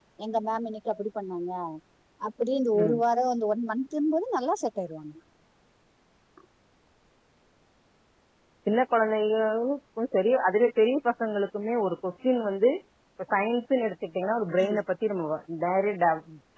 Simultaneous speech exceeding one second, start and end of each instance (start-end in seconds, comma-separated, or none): none